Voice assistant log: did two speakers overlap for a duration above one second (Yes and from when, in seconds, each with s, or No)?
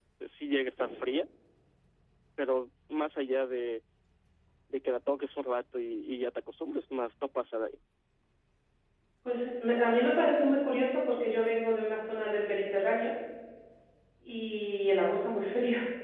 No